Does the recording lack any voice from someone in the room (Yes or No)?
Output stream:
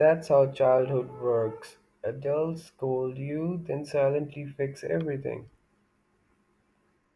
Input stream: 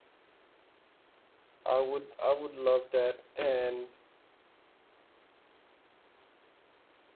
No